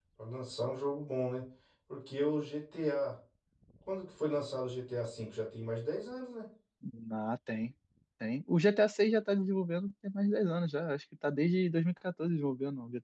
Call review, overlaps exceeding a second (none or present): none